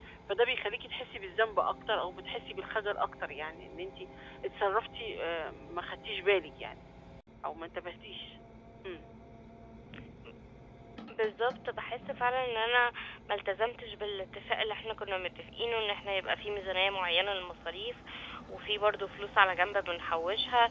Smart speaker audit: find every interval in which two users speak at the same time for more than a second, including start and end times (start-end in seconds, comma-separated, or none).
none